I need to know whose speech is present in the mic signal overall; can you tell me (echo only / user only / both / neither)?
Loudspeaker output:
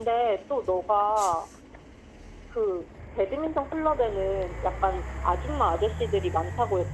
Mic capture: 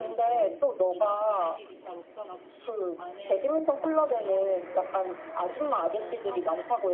both